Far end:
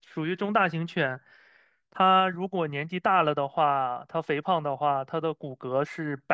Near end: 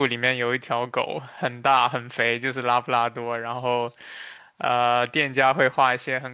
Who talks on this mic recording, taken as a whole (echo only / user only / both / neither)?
user only